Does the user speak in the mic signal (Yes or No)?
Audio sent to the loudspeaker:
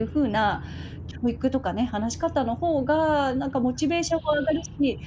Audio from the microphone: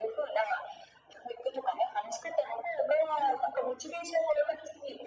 No